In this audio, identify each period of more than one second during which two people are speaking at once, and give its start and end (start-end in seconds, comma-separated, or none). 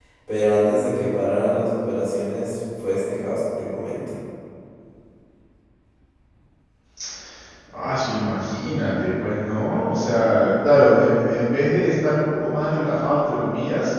none